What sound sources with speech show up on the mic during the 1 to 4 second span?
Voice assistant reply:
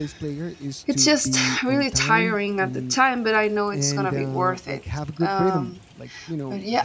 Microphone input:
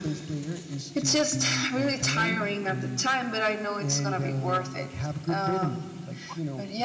echo only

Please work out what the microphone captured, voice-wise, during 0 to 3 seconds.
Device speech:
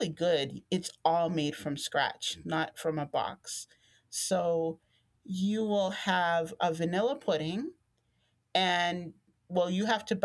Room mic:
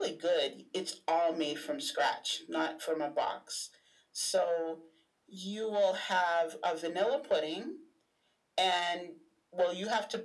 echo only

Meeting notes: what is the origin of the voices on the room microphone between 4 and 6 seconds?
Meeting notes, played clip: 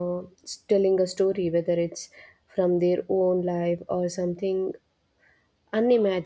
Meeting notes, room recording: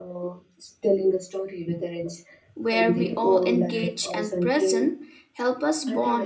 both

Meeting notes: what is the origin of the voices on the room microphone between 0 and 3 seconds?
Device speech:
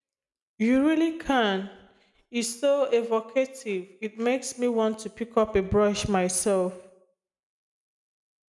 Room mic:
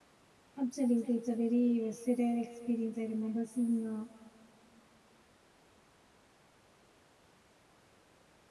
user only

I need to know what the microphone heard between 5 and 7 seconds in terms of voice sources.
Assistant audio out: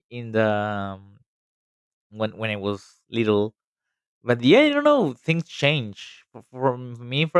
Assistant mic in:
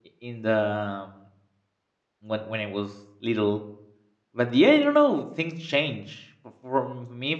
echo only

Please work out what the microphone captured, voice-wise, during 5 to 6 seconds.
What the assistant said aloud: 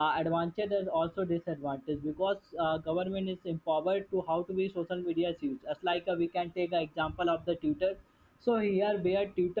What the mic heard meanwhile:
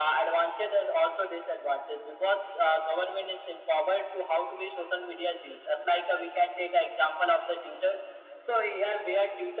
echo only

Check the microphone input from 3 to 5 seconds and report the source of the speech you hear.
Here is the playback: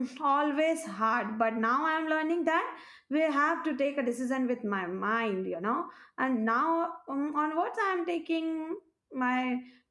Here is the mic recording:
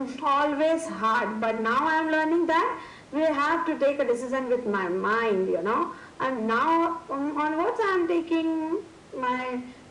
echo only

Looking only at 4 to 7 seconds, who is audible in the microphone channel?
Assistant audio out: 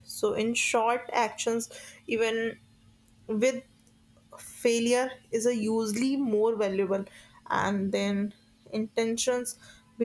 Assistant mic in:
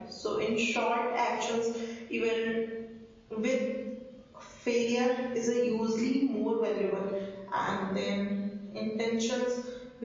echo only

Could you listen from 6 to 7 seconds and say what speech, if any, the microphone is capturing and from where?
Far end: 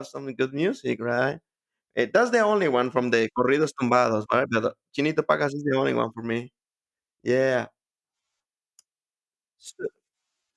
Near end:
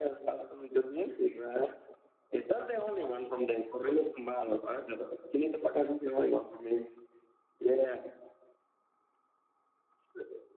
echo only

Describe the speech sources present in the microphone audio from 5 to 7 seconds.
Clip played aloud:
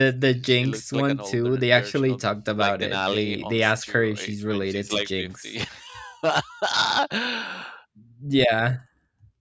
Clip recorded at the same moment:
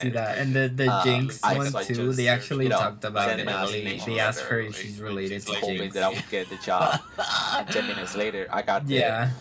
both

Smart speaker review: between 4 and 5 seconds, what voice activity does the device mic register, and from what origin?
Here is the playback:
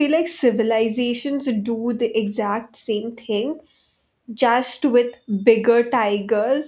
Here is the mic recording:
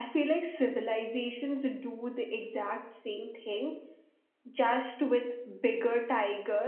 echo only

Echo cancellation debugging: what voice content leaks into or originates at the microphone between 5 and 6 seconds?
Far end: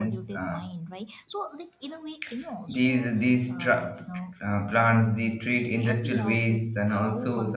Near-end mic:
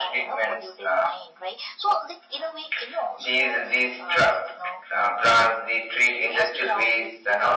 echo only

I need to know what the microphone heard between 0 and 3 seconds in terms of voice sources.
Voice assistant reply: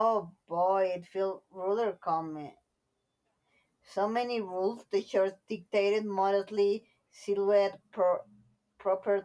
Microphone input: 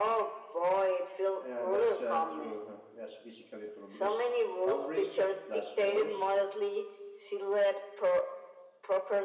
both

